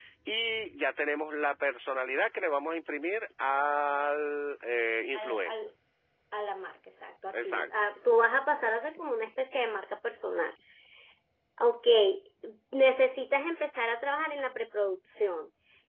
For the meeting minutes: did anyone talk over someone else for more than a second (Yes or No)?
No